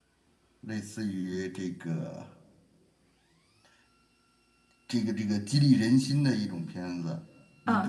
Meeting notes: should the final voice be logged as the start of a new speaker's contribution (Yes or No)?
Yes